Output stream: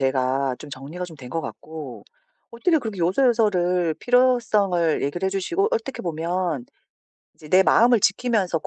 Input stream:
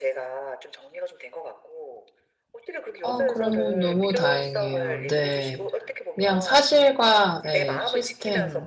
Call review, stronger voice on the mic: user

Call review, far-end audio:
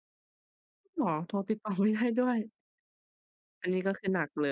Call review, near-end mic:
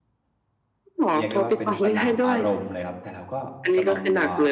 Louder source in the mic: echo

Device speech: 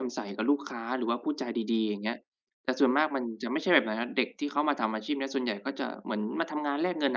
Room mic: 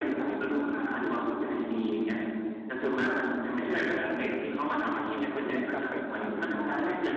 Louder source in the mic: echo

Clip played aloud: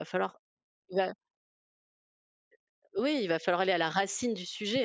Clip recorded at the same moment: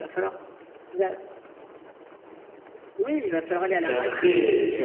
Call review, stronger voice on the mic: user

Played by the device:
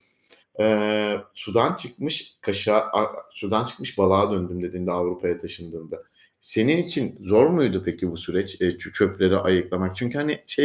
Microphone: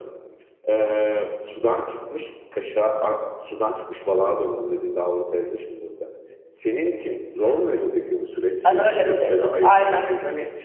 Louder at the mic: user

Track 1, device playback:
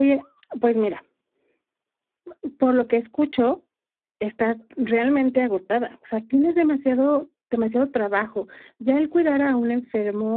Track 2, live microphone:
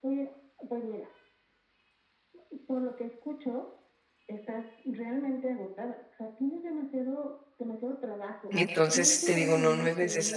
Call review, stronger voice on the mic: user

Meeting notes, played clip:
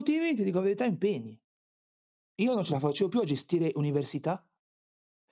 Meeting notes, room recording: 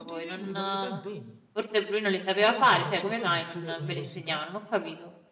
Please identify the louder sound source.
user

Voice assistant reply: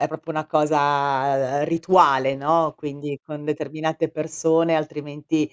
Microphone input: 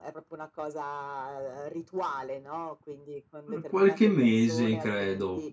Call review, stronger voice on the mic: user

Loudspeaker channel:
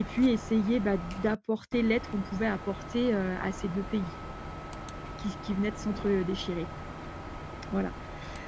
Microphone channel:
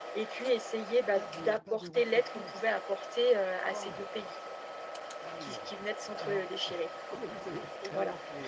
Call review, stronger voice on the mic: echo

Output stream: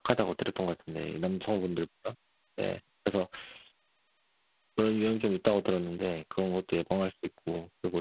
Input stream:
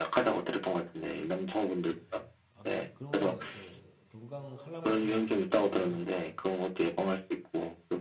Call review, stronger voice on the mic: echo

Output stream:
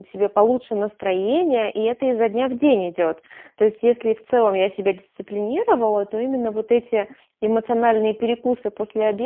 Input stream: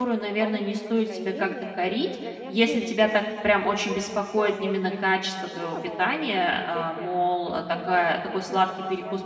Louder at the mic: user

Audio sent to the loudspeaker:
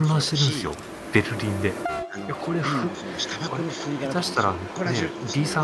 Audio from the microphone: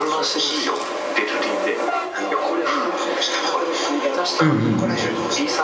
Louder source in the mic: user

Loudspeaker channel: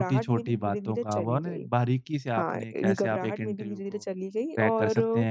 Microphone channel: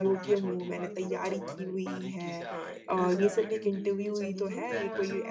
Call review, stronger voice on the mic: user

